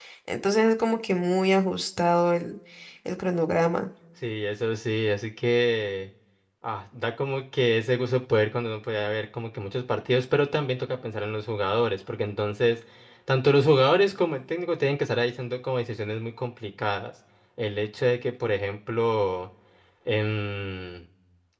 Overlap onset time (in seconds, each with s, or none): none